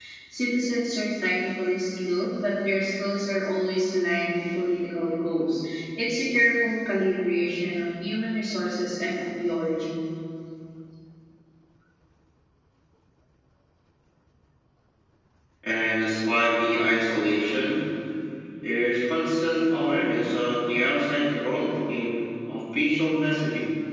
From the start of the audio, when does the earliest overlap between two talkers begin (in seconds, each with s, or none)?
none